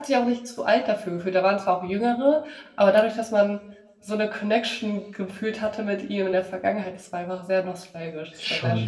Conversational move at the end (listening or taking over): taking over